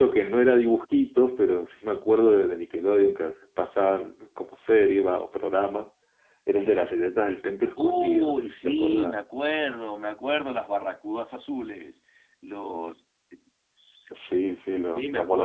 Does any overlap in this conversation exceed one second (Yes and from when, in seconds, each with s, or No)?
Yes, from 7.8 s